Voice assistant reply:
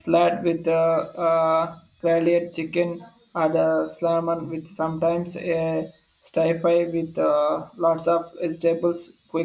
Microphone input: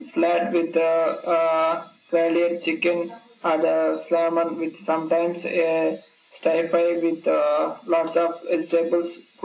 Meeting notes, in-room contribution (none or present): none